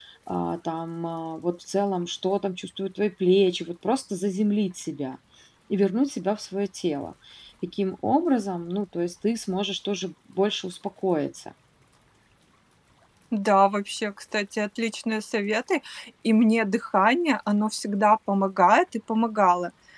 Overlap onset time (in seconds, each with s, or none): none